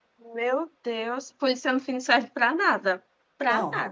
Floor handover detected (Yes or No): Yes